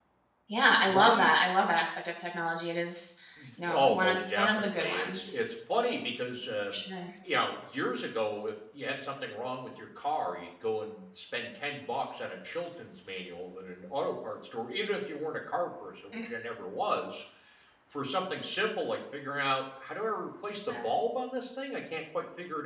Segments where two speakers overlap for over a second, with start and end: 3.7-5.4

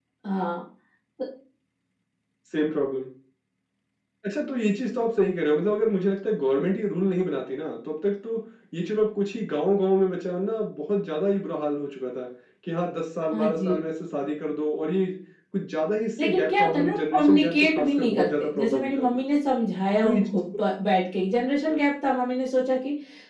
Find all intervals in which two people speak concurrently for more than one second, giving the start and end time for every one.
16.2-19.2

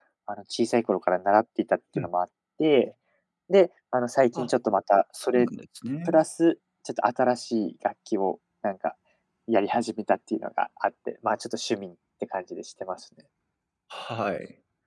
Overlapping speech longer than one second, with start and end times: none

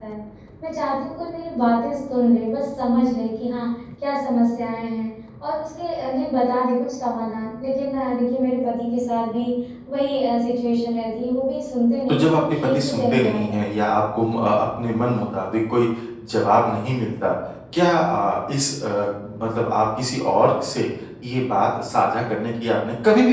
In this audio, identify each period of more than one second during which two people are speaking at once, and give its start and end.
12.1-13.7

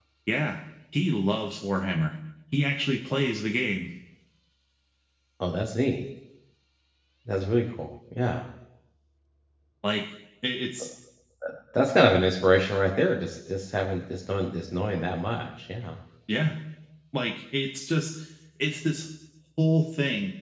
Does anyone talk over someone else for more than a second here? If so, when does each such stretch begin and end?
none

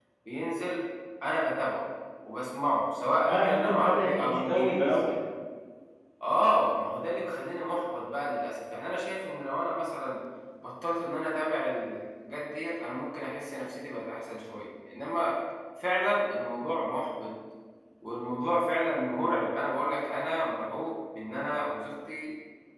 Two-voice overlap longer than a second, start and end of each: 3.2-5.1

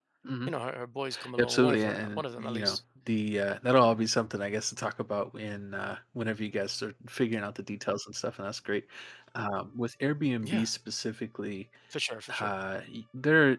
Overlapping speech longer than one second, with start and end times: 1.4-2.8

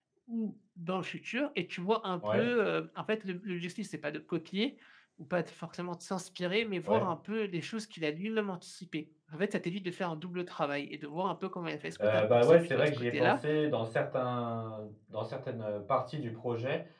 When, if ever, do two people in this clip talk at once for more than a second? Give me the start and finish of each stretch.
12.0-13.4

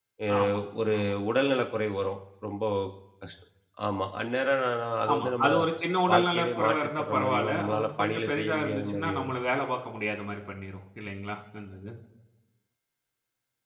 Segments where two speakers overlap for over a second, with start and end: 6.1-9.3

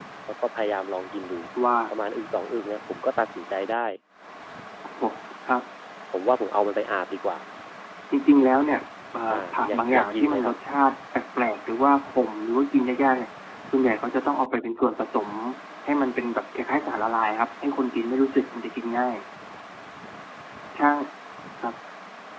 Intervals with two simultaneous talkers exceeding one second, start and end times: 9.3-10.5

